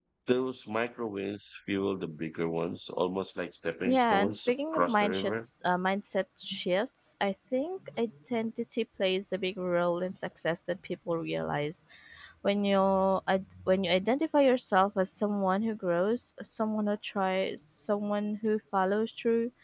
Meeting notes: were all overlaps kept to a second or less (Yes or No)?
No